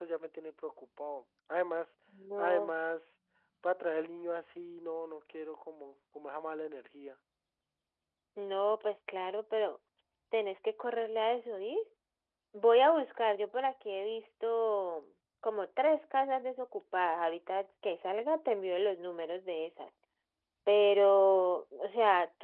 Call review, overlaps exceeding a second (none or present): none